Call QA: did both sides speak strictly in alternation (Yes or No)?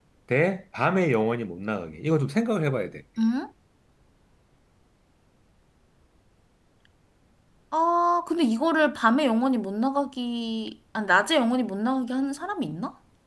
Yes